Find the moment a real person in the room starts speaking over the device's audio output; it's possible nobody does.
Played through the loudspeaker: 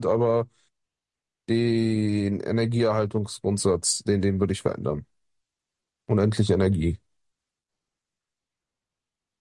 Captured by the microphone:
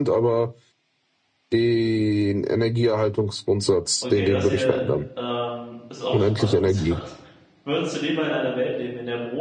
4.0 s

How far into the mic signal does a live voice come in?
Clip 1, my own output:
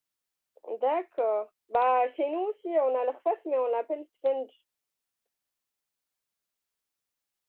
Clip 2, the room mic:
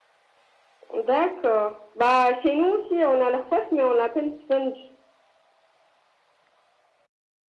none

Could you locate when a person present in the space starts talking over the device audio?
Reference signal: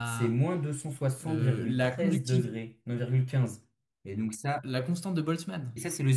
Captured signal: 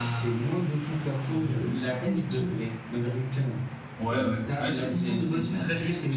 4.0 s

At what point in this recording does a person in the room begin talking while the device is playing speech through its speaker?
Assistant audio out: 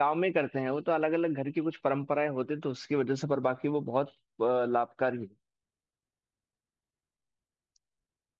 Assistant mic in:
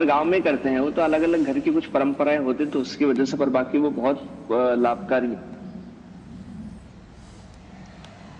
none

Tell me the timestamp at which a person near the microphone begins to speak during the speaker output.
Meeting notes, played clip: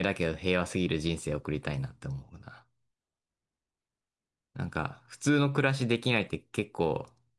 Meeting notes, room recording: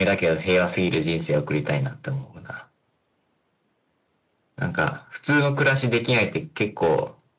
none

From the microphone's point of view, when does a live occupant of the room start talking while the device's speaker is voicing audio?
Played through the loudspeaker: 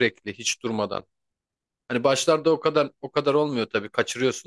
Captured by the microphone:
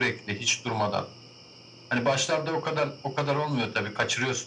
none

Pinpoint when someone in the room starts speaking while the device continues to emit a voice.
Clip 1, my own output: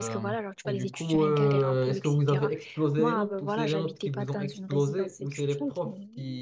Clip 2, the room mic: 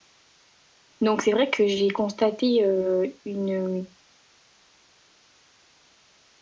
1.0 s

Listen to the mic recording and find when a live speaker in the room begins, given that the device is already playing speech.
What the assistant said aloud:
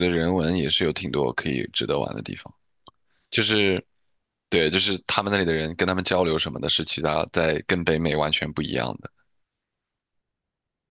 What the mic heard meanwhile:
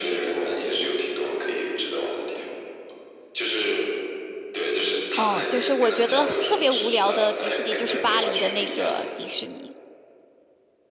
5.1 s

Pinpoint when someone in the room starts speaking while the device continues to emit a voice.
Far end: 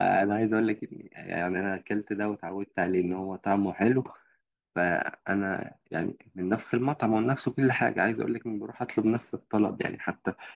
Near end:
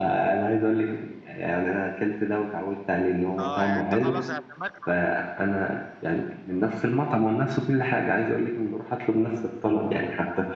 3.4 s

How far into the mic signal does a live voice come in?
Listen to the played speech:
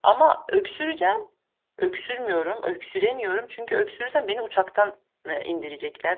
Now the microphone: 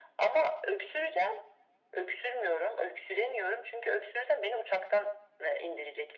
none

